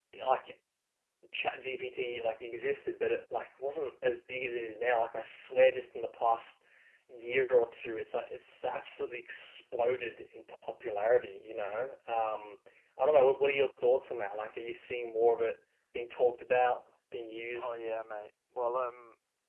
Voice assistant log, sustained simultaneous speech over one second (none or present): none